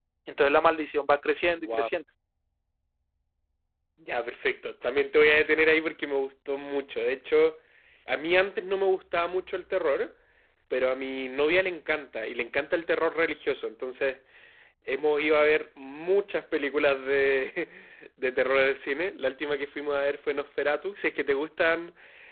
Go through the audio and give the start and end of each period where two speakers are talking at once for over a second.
none

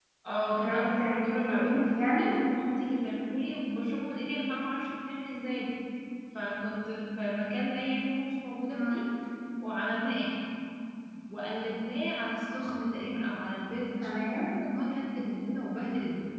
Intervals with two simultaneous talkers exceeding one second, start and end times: 0.6-2.2

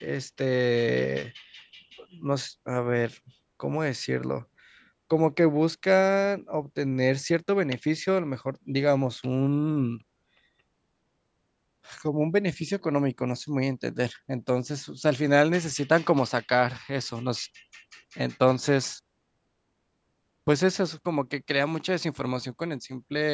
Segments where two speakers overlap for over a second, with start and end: none

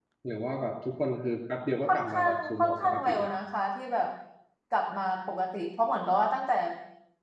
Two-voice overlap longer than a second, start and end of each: 1.8-3.3

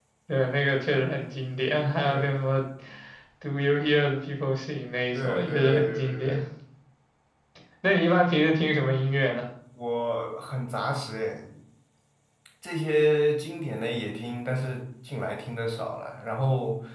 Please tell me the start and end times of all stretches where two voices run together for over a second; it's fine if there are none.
5.1-6.4

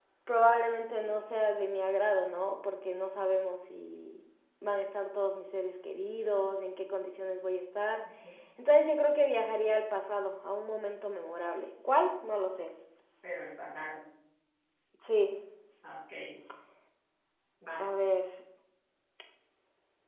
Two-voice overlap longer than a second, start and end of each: none

